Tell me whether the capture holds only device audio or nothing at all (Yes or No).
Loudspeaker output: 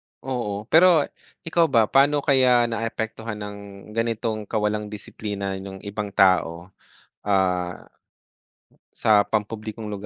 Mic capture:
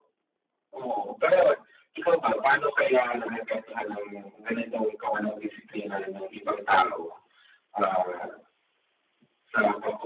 Yes